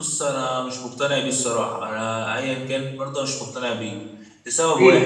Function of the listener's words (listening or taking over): taking over